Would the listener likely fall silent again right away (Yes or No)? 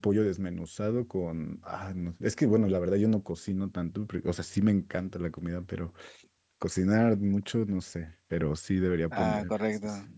No